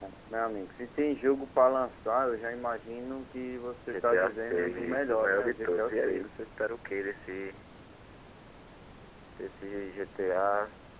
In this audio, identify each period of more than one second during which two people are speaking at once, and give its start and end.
3.9-6.3

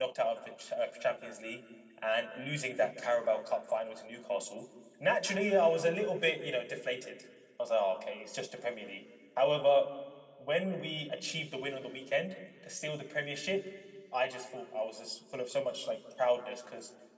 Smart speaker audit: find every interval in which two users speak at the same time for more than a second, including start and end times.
none

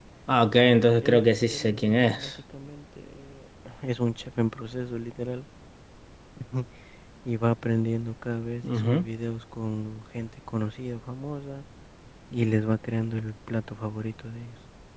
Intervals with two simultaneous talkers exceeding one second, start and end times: 0.6-2.3

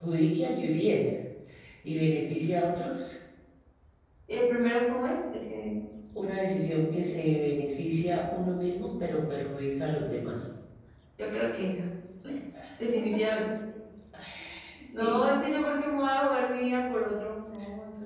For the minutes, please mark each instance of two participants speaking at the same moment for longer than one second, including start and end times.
none

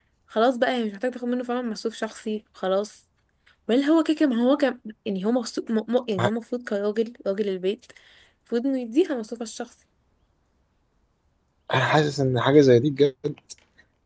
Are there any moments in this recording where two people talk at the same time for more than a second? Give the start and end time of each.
none

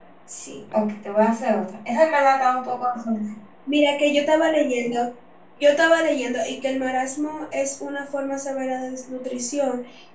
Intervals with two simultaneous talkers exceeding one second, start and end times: none

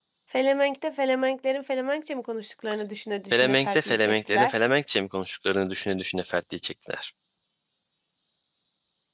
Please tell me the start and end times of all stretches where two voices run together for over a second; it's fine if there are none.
3.3-4.5

